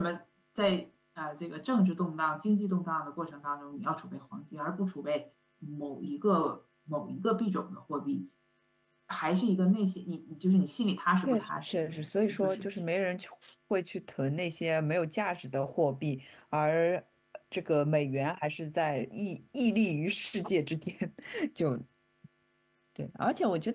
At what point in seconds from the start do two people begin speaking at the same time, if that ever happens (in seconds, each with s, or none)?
11.2 s